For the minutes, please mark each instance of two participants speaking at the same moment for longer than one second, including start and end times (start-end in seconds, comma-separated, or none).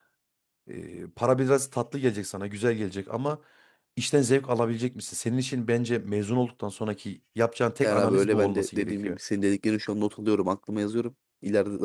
7.8-9.2